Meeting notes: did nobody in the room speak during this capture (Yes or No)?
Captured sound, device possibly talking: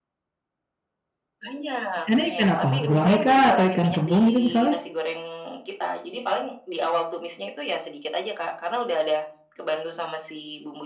No